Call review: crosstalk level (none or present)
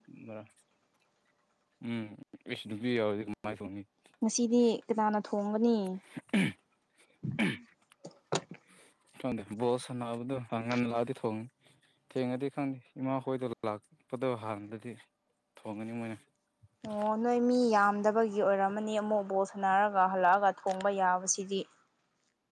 none